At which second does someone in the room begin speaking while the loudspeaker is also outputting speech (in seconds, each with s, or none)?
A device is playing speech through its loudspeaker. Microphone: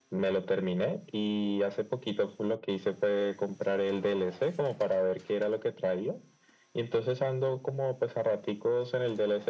none